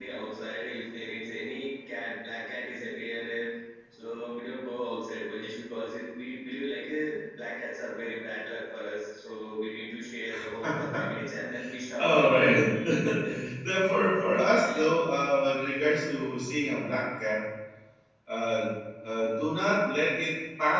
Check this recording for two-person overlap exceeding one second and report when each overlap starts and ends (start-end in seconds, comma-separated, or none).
none